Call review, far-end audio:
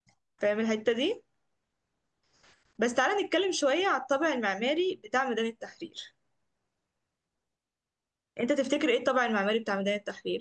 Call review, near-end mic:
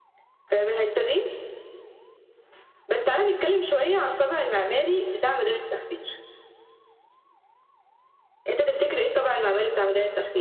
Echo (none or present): present